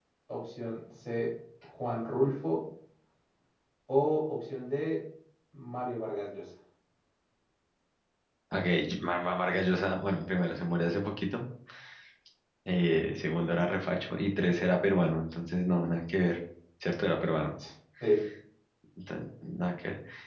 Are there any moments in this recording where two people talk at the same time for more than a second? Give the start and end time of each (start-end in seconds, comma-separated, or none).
none